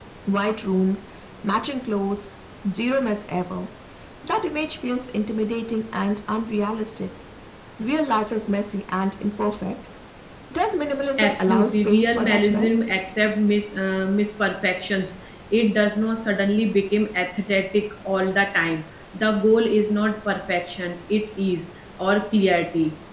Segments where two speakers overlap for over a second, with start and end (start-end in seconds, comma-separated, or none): 11.2-12.8